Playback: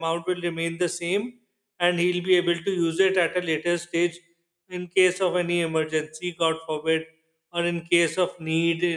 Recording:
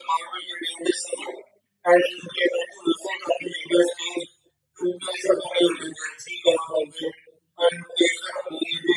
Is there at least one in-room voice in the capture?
No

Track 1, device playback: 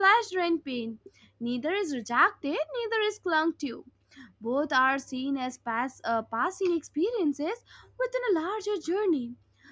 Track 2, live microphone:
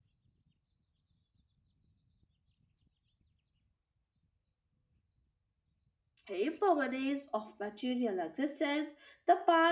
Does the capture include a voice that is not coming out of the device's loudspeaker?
Yes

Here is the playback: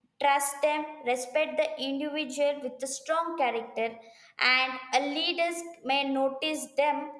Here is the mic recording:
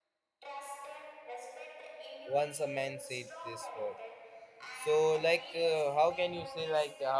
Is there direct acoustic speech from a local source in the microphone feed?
Yes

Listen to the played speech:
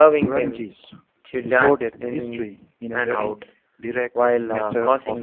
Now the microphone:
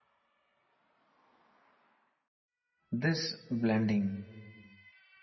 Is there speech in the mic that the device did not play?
Yes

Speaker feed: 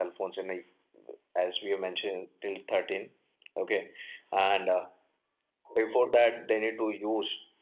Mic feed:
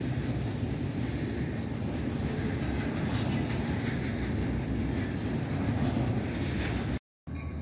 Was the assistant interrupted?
No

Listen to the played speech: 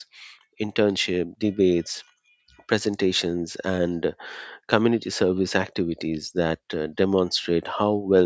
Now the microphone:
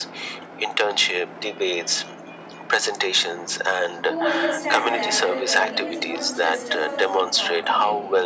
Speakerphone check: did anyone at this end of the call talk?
Yes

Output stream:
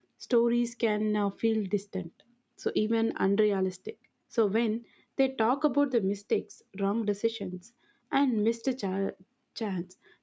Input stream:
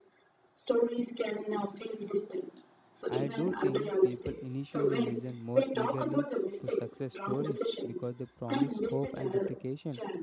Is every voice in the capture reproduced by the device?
No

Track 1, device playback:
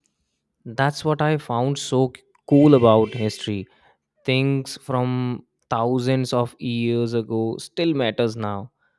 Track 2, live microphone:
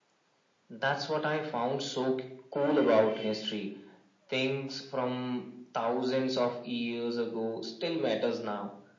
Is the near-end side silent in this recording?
Yes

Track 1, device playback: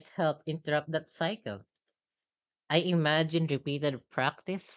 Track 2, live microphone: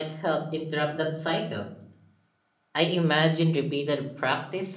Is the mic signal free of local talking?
Yes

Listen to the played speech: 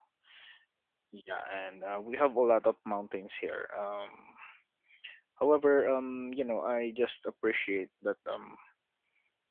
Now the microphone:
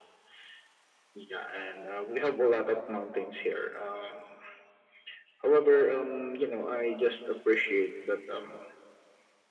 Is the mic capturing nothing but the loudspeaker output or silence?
Yes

